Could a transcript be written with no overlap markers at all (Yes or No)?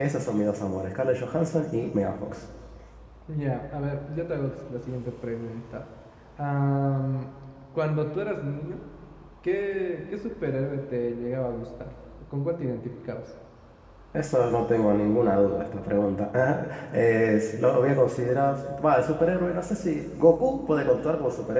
Yes